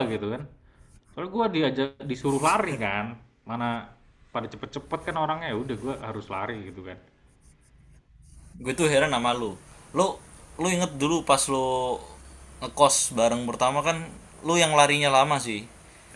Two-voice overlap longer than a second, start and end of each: none

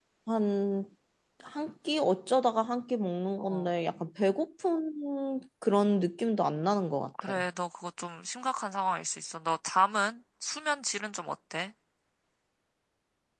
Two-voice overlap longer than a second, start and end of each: none

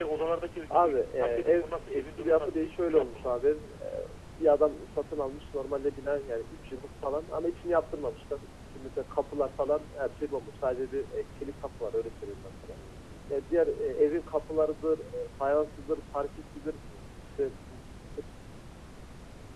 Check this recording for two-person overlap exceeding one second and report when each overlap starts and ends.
0.7-3.3

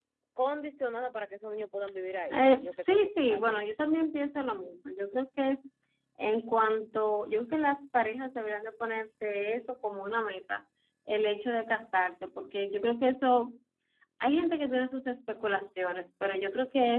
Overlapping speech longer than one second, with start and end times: 2.3-3.7

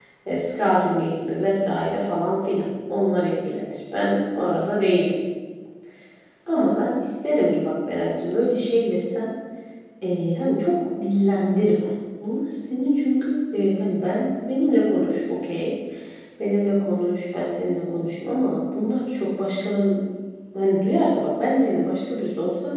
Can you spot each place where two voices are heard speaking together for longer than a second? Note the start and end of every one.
none

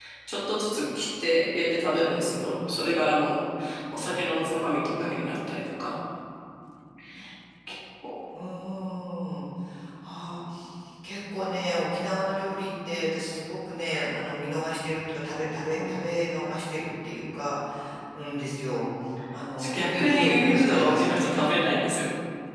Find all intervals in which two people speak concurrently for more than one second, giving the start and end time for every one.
19.7-21.4

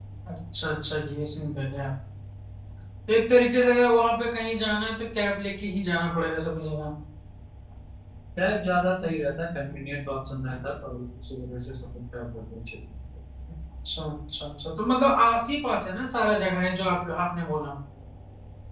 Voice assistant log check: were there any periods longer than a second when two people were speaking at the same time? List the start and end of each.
none

